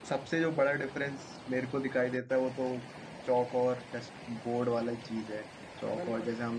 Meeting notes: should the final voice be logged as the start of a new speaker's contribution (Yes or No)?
No